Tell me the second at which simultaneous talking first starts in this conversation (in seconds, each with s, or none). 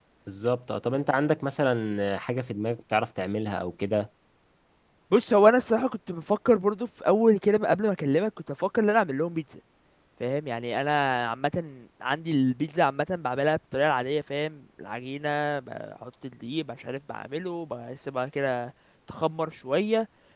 none